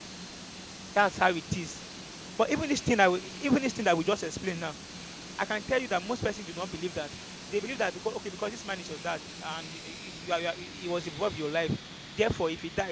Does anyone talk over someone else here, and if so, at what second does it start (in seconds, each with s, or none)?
none